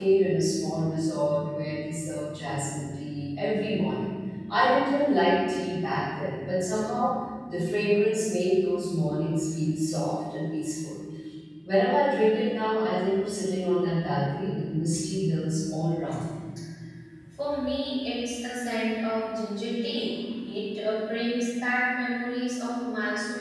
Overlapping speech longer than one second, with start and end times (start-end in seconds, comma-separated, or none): none